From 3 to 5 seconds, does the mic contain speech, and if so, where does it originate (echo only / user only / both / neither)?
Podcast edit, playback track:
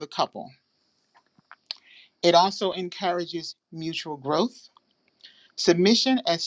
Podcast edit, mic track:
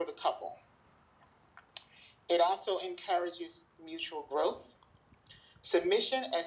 echo only